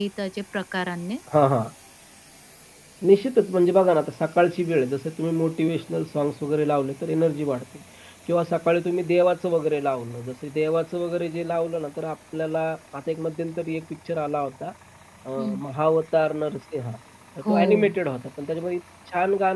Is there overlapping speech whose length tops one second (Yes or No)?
No